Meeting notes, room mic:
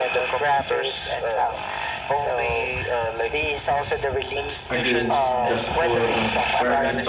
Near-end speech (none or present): present